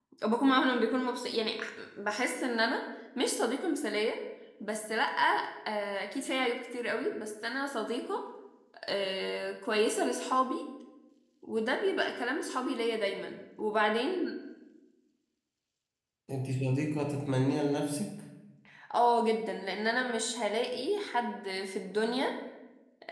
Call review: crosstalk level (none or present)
none